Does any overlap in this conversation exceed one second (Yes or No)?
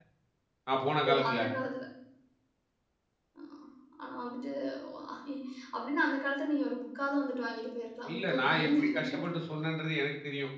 Yes